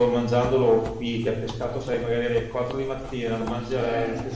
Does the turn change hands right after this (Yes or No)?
No